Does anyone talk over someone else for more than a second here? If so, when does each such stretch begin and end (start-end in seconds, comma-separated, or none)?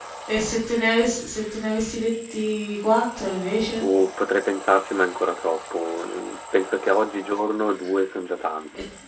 none